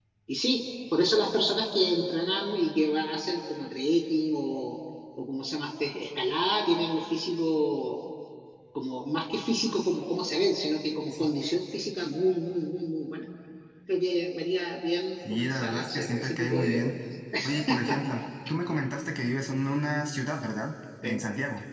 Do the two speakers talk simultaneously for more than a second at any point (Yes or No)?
Yes